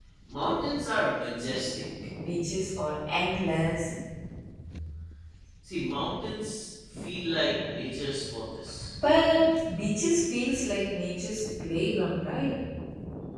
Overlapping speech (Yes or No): No